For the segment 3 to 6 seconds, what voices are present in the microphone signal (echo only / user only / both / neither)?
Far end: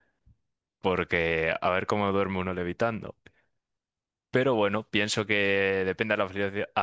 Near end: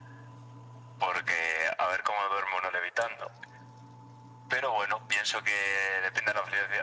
echo only